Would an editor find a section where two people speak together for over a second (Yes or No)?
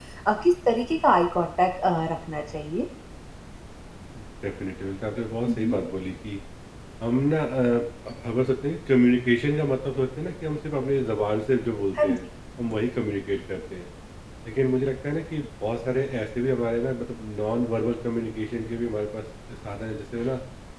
No